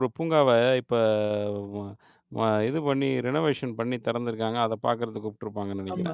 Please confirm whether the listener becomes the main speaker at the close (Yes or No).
Yes